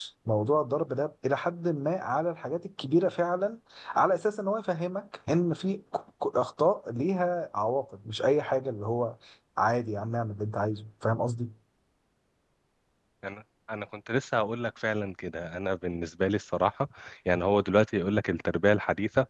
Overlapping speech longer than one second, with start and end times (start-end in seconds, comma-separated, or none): none